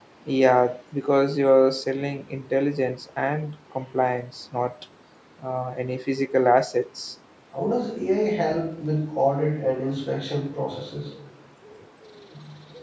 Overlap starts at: none

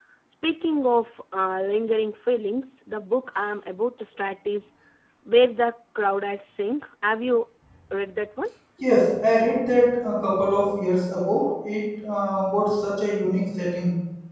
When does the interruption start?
none

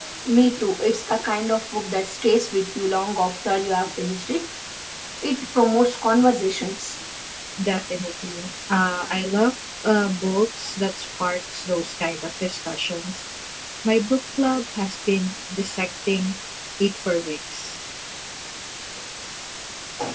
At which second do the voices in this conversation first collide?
none

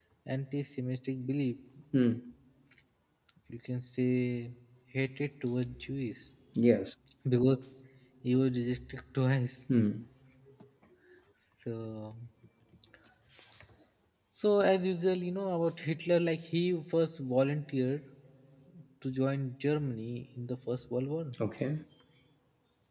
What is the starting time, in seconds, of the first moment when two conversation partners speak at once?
none

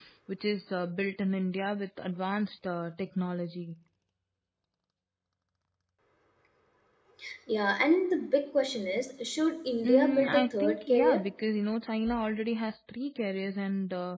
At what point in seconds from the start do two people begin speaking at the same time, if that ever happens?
9.8 s

